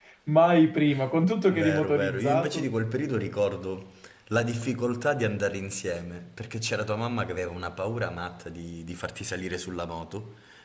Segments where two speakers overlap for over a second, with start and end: 1.5-2.7

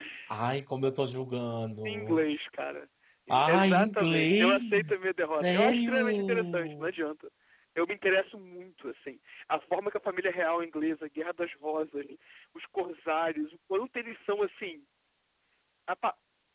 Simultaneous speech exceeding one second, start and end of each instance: 3.3-5.0, 5.4-6.9

